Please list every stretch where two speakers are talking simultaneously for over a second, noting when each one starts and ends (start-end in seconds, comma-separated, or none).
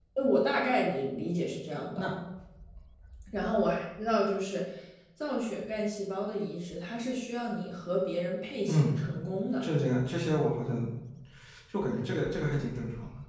none